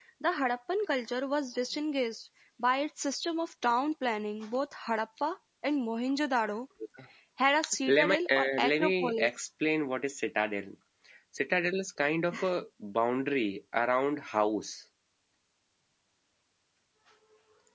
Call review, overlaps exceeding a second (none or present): present